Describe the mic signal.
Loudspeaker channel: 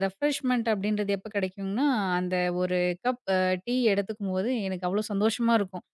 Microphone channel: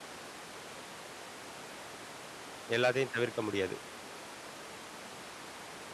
user only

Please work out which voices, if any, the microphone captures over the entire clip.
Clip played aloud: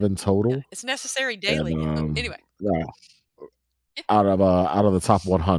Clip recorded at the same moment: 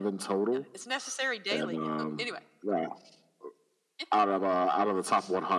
echo only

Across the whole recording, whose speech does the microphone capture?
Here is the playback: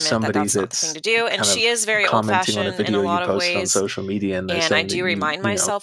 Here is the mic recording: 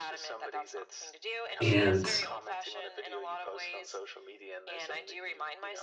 both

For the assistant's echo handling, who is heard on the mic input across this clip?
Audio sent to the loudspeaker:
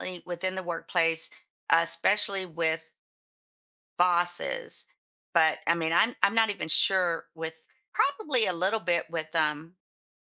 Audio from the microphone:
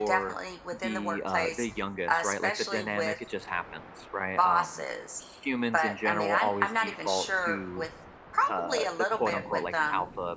both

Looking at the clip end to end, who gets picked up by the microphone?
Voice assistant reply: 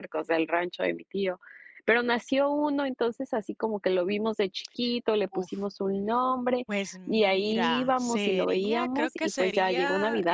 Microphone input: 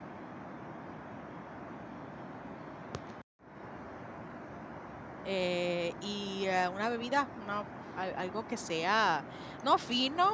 user only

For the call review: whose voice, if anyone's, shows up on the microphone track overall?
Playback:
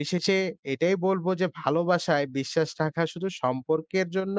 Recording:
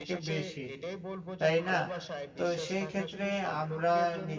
both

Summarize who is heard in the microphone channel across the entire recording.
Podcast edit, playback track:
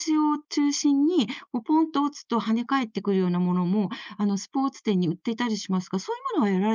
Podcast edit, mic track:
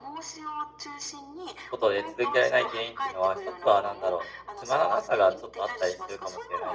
both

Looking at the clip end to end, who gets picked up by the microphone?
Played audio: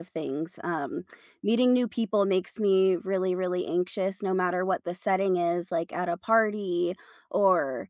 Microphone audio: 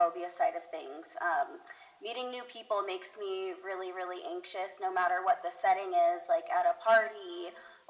echo only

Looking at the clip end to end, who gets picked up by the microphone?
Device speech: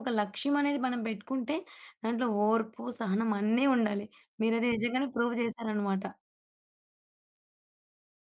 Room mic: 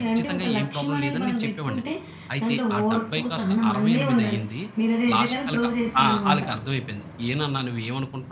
both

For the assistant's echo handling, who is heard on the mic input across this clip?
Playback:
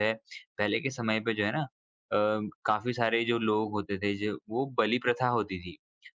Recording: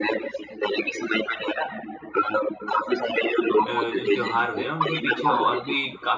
both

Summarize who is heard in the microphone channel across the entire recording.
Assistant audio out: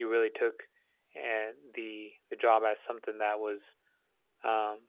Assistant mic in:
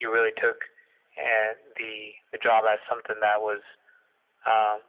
echo only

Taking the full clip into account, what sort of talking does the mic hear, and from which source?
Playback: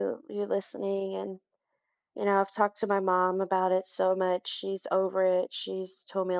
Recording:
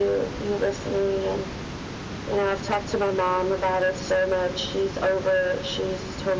echo only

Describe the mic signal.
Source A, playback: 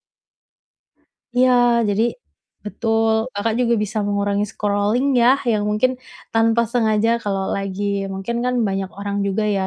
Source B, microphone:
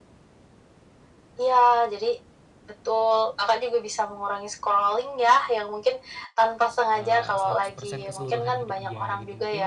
both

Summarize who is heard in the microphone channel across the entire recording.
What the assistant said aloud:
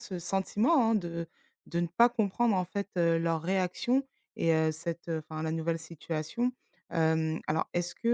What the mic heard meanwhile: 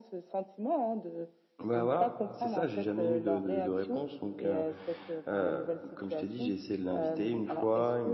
both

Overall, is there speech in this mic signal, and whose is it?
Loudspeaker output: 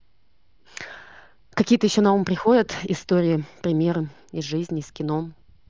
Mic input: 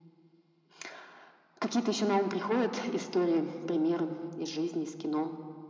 echo only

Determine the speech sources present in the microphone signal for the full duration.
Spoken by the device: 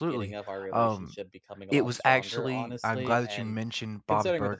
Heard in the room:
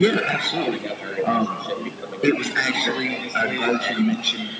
echo only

